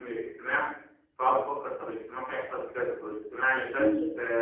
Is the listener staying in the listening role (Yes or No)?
Yes